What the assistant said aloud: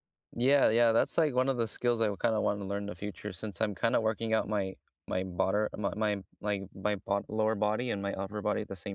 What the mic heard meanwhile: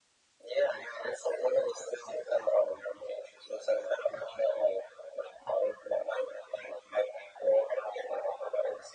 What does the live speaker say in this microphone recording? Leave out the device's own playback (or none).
none